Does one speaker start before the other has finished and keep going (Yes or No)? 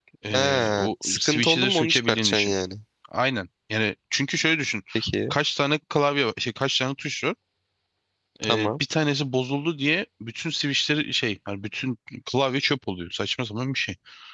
Yes